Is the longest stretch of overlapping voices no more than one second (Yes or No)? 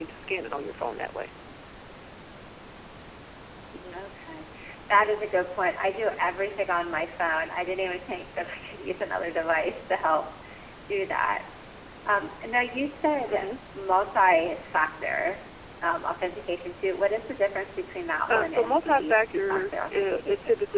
No